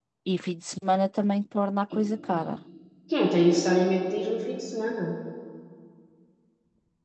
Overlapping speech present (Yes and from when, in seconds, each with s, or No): No